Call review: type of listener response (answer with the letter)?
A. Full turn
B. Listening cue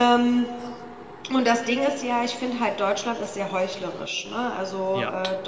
B